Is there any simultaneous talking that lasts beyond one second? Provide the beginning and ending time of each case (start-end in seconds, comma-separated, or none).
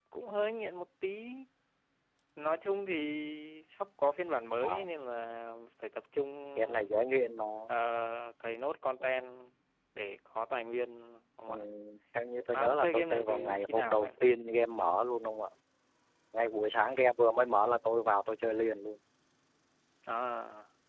12.5-14.1